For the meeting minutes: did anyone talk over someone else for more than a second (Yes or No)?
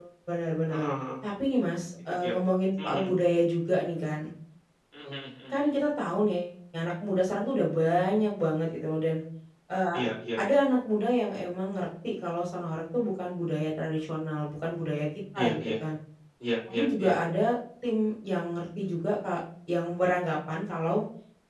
No